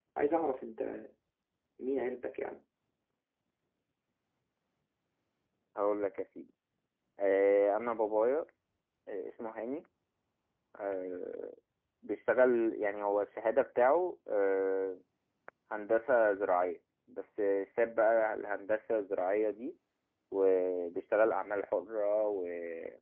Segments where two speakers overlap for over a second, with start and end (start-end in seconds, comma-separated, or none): none